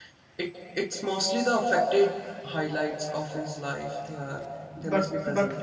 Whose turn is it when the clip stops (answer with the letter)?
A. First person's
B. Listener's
B